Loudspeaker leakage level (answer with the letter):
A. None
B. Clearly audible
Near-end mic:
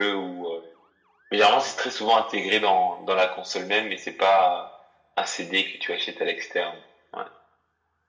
B